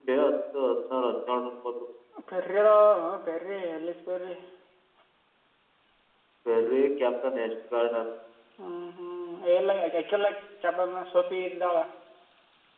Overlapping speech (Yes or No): No